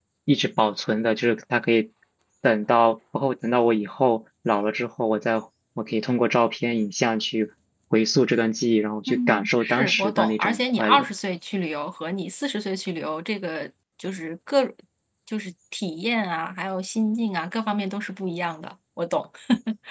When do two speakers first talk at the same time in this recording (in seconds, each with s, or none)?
9.1 s